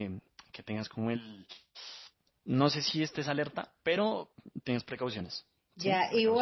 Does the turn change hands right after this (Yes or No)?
Yes